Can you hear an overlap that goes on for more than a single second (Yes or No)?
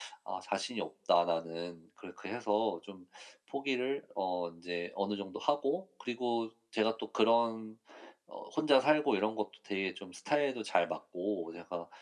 No